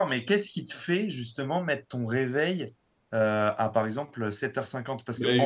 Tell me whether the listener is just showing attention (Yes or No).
No